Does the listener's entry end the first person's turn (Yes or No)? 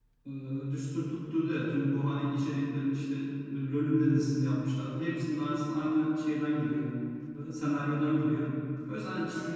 No